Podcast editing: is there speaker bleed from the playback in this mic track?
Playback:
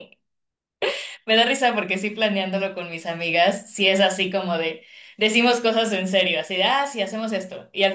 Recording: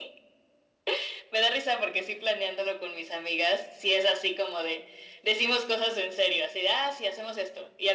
Yes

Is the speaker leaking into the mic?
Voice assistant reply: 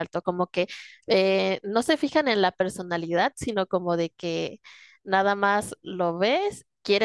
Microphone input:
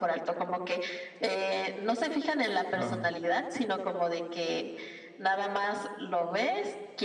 Yes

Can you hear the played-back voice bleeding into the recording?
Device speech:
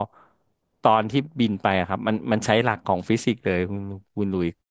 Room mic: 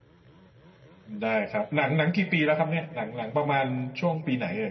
No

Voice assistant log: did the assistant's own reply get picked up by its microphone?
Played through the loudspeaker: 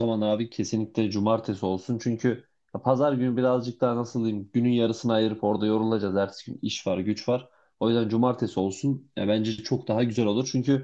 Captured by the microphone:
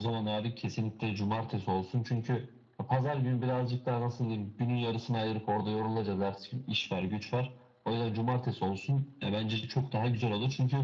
Yes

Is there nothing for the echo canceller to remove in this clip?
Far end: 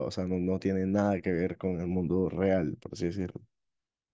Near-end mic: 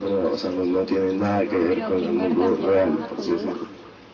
No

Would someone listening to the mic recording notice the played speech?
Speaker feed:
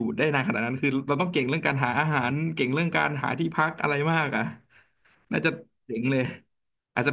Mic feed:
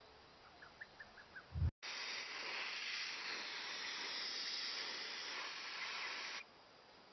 No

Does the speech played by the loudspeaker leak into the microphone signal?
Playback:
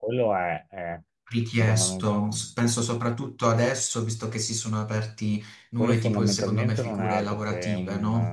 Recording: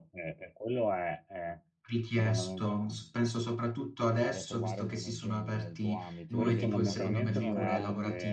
Yes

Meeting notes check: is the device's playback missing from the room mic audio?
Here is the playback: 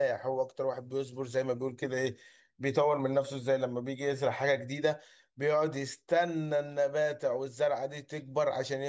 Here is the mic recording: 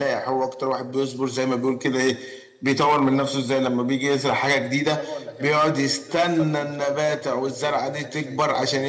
No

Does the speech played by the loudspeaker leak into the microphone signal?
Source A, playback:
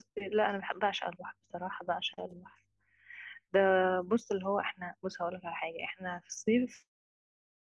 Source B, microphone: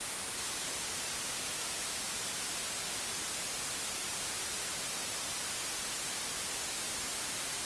No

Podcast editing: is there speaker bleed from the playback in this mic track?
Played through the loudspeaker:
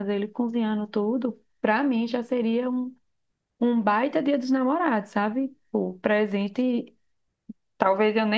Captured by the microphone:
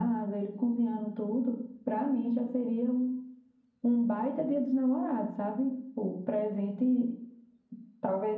Yes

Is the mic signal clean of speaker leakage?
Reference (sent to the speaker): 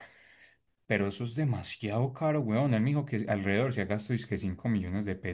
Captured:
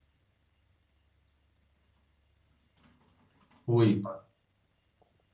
Yes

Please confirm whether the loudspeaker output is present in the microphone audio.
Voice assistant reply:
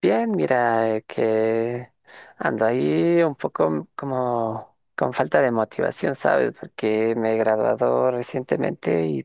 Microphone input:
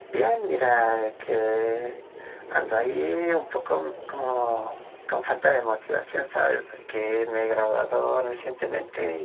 Yes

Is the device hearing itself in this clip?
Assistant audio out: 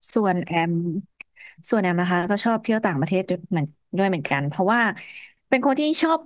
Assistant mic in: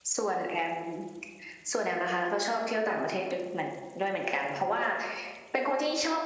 Yes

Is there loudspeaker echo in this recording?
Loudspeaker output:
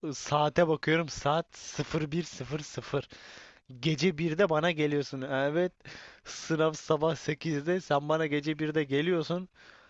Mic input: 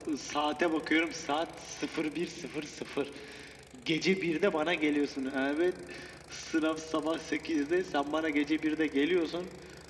Yes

